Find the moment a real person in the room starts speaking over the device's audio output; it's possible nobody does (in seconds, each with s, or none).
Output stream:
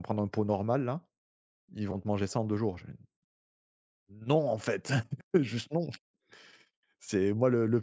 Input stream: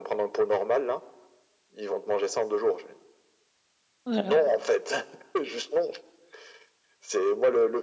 4.0 s